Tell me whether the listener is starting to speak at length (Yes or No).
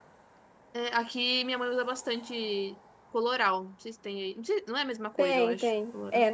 Yes